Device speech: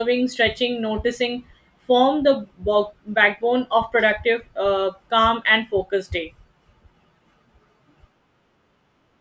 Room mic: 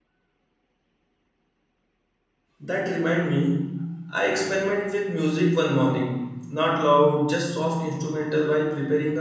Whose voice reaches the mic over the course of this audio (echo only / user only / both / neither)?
user only